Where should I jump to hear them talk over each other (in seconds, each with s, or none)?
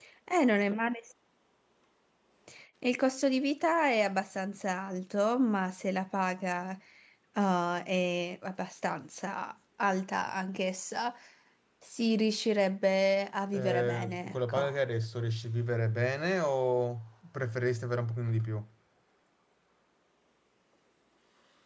13.5 s